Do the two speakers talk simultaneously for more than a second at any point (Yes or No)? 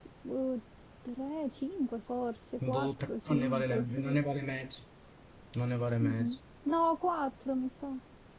Yes